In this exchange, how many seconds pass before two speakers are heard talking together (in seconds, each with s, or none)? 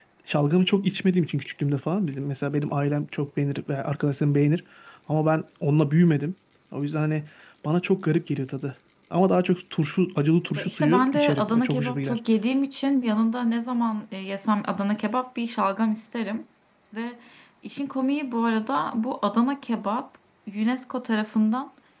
10.6 s